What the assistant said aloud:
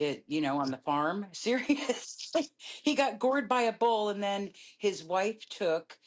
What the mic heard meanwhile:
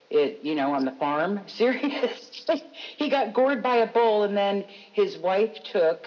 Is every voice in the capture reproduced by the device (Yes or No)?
Yes